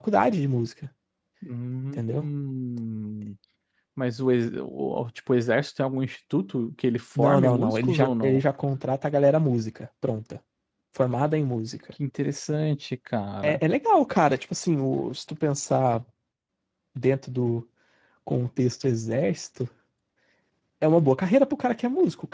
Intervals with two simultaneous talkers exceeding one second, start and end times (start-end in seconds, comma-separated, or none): 7.2-8.4